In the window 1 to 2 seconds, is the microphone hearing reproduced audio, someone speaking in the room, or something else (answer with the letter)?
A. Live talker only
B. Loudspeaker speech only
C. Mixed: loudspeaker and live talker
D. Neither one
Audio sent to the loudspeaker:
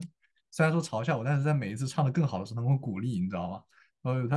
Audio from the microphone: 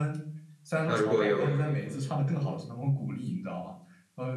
C